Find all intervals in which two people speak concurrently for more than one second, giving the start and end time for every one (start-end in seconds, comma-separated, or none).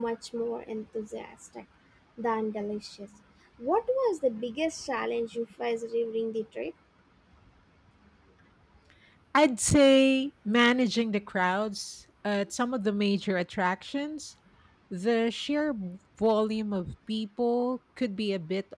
none